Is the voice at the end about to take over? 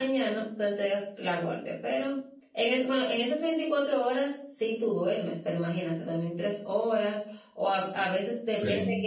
No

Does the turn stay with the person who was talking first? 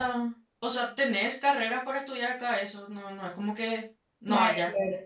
No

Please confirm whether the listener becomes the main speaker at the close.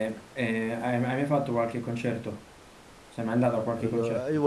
Yes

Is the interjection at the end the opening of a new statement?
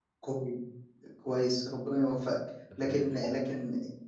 No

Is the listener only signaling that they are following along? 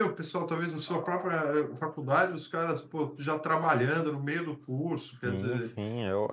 No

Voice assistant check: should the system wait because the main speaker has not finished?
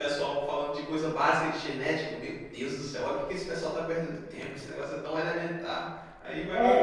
No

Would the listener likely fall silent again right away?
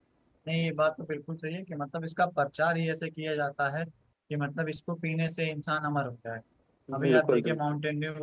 Yes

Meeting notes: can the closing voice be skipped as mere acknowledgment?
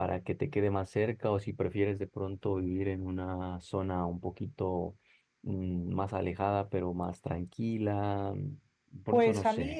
No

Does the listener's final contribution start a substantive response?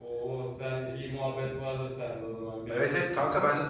Yes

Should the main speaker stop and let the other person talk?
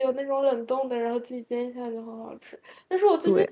No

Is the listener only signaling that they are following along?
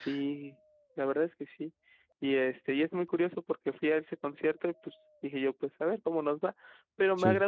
Yes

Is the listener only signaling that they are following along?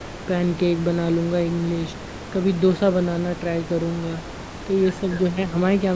Yes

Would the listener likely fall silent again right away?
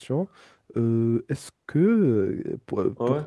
Yes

